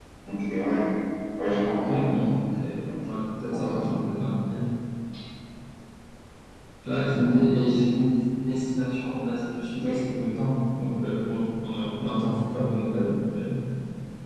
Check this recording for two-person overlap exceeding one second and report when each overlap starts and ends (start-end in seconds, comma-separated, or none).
none